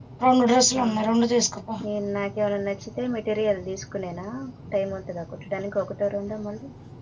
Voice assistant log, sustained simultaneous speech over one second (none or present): none